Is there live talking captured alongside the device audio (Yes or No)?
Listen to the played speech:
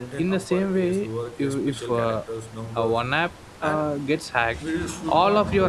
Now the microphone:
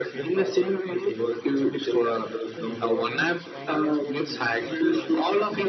Yes